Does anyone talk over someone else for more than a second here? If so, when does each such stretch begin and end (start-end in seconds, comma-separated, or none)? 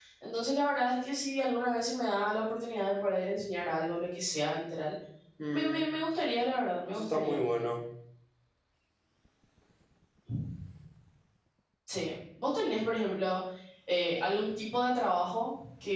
none